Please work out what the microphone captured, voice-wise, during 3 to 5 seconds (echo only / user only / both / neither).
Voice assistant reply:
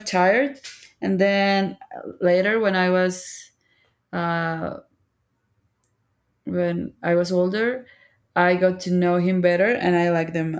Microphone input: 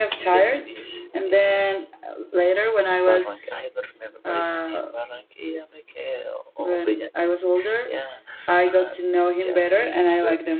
both